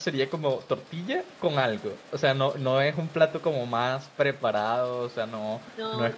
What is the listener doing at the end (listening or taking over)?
listening